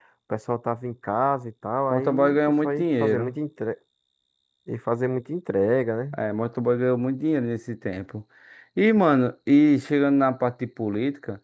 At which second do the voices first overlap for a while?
1.9 s

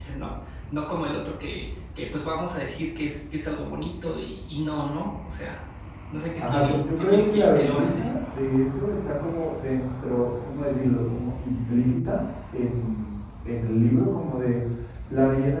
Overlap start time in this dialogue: 6.4 s

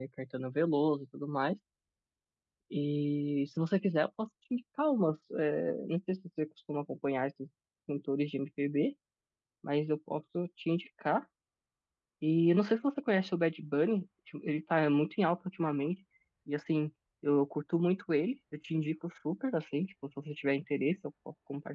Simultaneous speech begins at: none

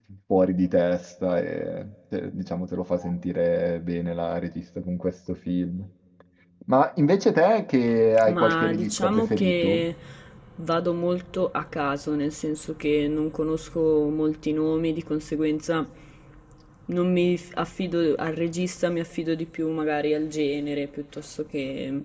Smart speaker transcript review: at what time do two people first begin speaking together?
8.2 s

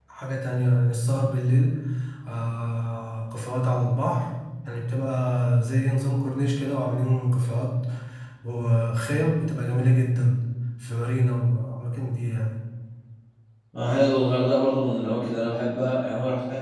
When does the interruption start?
none

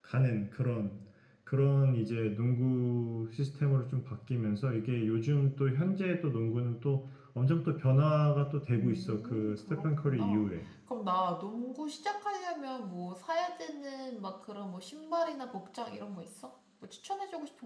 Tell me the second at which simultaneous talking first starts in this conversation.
8.7 s

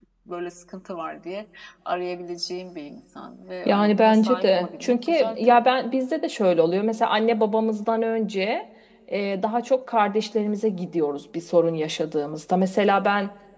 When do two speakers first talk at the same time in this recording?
3.6 s

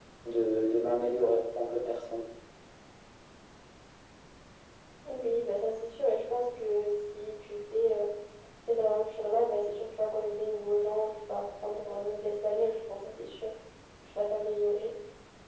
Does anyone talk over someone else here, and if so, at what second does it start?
none

